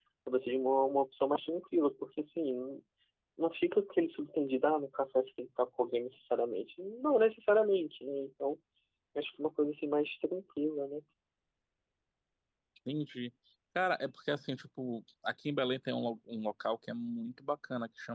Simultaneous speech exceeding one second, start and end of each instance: none

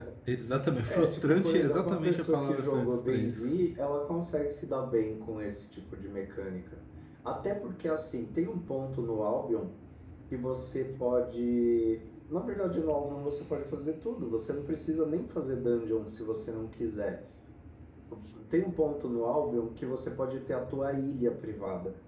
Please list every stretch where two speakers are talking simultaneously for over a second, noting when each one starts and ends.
0.9-3.3

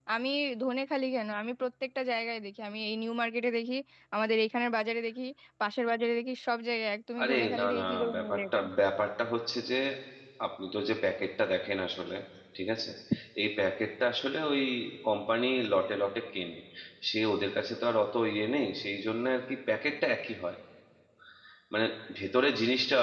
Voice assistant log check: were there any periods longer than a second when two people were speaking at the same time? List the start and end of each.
7.2-8.6

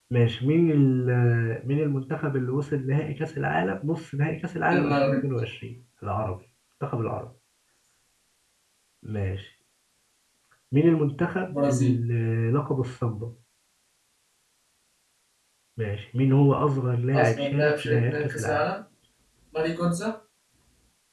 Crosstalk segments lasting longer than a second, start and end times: 17.2-18.6

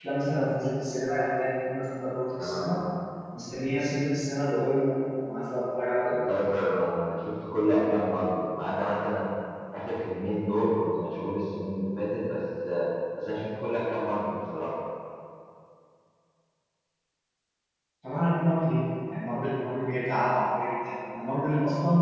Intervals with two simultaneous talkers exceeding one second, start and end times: none

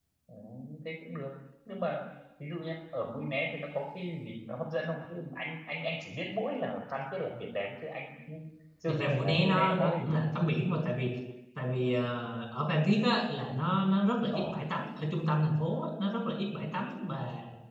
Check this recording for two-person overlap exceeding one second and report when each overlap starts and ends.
8.9-10.1

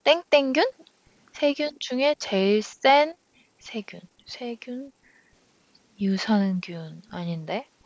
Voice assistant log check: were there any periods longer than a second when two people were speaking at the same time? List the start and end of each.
none

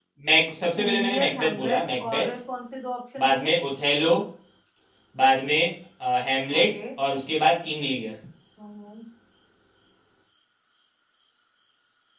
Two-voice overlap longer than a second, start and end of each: 0.8-2.4

